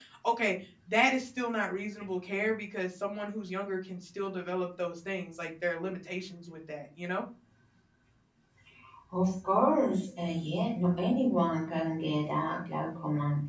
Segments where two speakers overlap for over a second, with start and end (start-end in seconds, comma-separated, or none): none